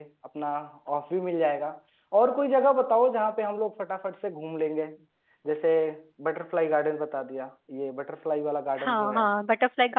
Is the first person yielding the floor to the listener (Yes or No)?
Yes